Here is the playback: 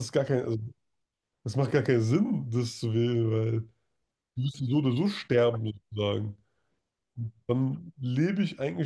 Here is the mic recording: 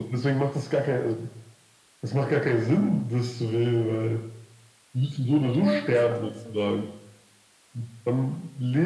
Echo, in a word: present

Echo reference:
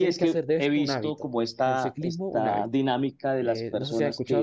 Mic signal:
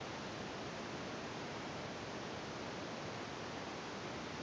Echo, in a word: none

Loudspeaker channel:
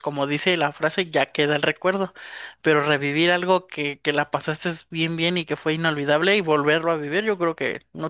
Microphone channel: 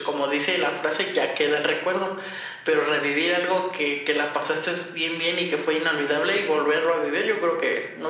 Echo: present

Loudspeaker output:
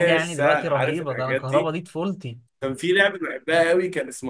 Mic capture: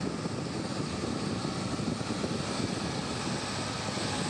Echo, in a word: none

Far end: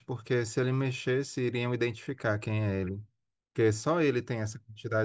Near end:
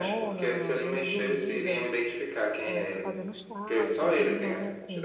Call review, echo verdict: present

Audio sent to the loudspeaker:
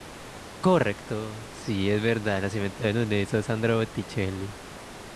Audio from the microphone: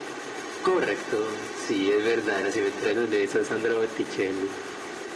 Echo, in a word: present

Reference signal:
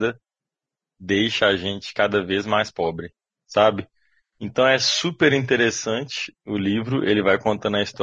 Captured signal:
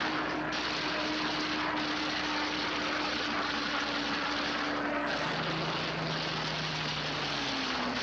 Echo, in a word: none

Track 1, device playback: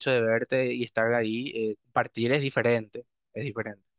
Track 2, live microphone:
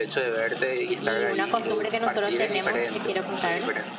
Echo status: present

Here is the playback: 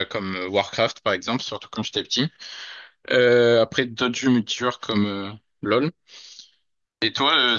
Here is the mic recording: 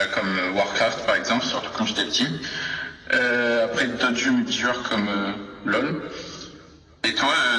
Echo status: present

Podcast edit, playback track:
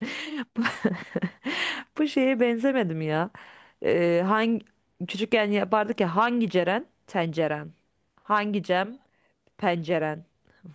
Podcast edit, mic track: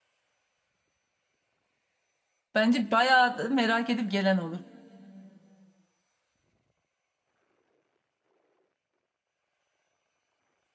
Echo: none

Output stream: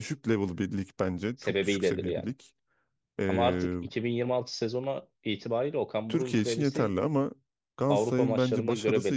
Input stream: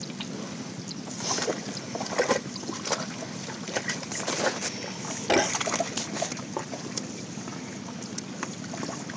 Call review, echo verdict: none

